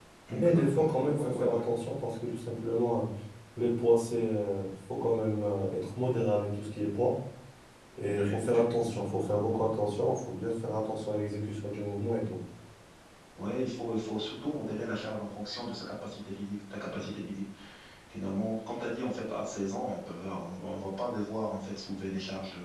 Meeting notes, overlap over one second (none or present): present